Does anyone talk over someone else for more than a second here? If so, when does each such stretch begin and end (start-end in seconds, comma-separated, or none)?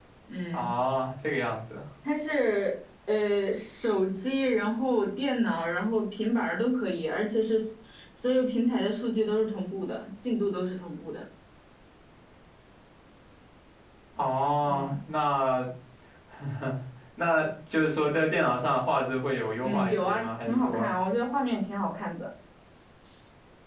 19.6-20.9